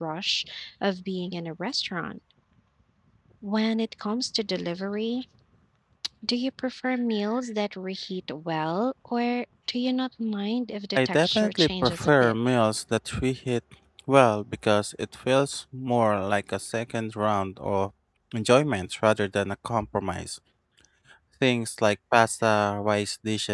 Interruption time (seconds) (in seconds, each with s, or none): 11.0 s